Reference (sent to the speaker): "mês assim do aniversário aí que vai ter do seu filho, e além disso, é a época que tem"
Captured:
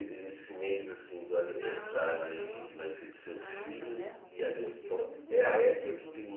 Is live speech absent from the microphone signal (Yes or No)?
No